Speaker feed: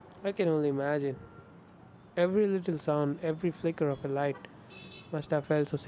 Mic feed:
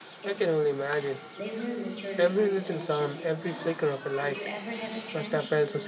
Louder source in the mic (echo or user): echo